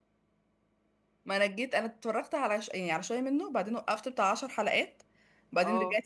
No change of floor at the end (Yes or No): Yes